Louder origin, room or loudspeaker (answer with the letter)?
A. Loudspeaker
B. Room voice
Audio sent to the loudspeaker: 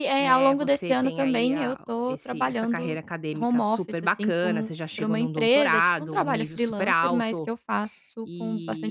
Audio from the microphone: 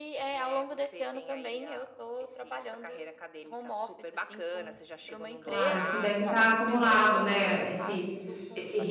B